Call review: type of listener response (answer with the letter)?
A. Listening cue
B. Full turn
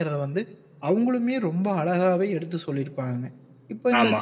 A